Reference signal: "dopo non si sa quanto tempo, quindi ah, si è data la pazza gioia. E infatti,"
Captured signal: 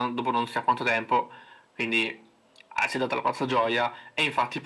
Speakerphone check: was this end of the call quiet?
Yes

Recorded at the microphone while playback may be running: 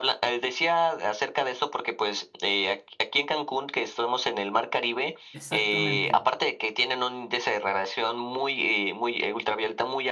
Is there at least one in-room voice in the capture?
Yes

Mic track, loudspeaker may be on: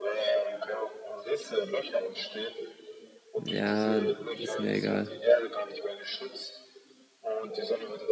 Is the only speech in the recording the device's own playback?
No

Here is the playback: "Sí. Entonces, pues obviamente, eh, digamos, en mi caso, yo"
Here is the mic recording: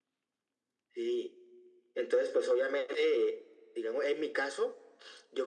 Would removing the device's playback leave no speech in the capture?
Yes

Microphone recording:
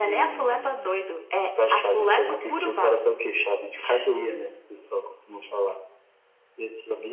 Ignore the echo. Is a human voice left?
No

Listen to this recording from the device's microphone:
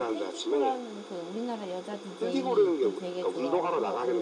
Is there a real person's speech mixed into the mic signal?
Yes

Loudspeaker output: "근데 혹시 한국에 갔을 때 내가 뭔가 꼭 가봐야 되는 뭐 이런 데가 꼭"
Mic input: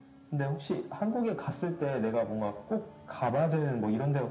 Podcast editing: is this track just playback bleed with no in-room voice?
Yes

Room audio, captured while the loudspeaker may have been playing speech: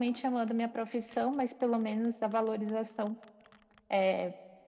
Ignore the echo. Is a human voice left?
No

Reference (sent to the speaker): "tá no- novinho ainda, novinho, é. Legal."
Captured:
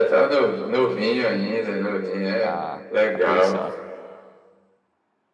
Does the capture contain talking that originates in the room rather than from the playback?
Yes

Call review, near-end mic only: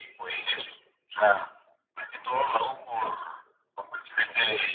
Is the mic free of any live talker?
Yes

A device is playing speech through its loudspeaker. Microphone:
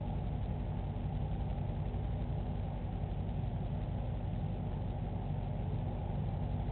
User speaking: No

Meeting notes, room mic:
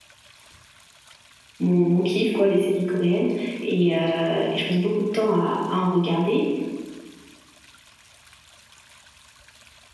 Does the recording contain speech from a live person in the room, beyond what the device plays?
Yes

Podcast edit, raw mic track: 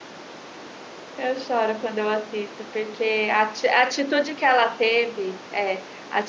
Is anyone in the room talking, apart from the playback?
Yes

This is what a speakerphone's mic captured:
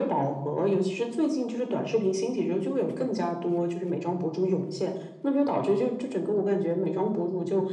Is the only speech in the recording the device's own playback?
Yes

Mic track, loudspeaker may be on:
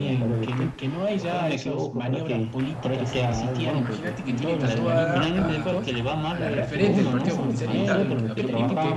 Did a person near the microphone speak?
Yes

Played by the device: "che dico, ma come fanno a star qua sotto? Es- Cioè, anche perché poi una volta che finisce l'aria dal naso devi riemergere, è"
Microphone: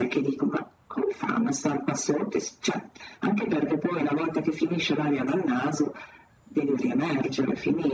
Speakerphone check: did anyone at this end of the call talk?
No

